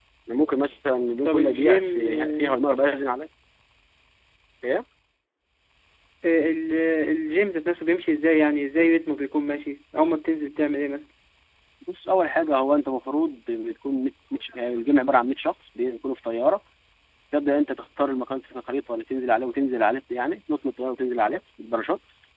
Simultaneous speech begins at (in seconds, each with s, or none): 1.2 s